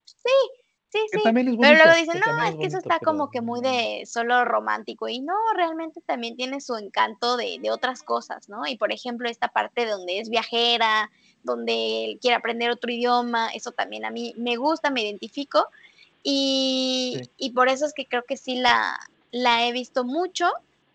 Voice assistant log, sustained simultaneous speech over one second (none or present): present